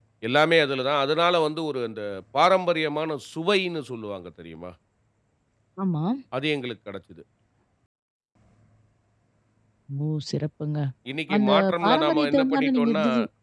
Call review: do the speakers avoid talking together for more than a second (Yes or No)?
No